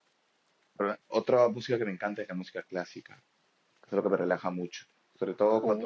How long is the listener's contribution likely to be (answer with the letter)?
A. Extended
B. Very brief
B